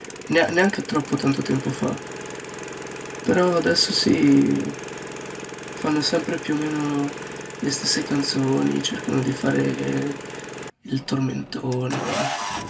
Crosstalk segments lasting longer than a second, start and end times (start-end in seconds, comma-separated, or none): none